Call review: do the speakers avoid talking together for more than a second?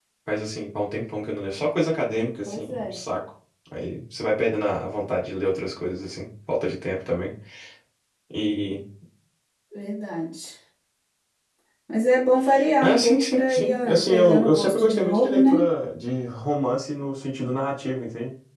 No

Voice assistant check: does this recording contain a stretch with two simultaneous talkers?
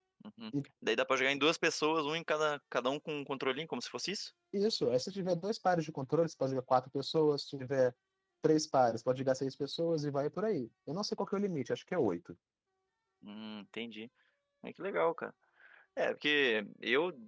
No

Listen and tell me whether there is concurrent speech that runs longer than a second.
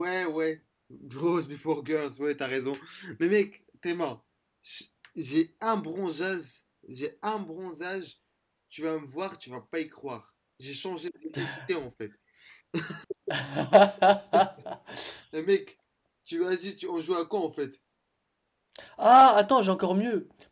No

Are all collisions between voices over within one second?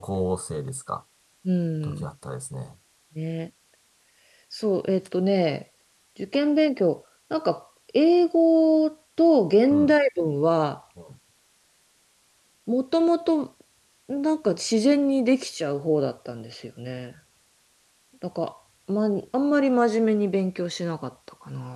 Yes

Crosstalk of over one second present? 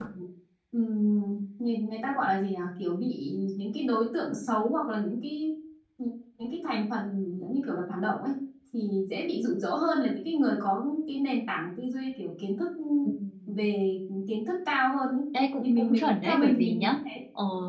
Yes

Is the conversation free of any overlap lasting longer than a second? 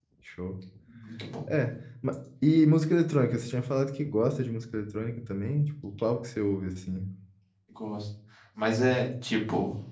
Yes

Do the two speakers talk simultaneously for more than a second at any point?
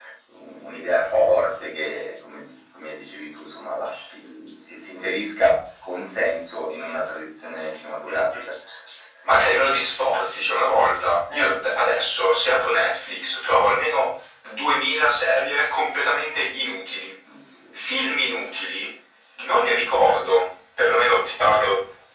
No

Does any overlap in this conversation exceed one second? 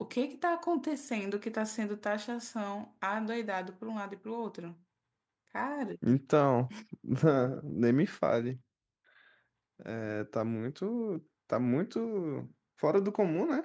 No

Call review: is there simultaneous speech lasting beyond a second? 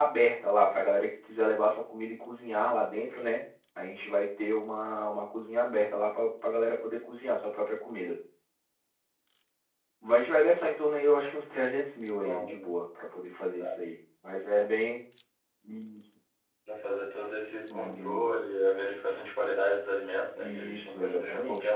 Yes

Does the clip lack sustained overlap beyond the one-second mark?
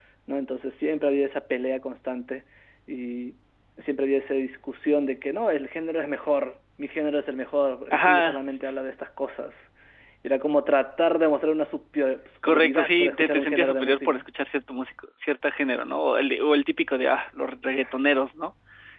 No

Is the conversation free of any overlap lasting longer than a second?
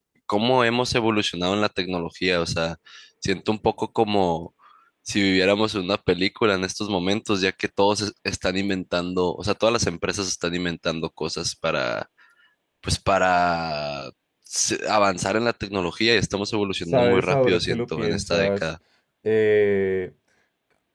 No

